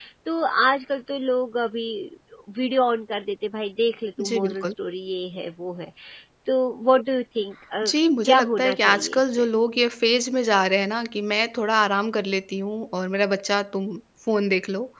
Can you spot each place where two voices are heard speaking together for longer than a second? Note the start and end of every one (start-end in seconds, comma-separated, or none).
8.2-9.5